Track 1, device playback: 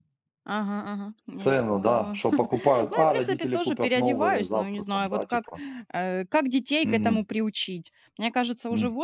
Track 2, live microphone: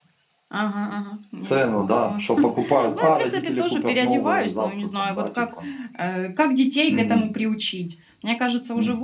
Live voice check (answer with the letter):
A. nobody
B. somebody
A